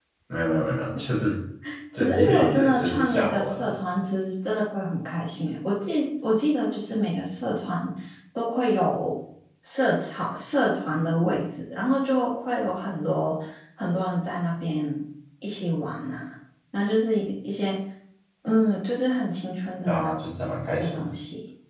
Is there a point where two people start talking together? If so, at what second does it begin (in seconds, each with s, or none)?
2.0 s